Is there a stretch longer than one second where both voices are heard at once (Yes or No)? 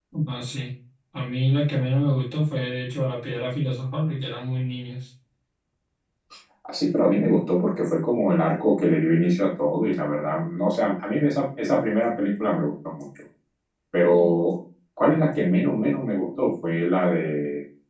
No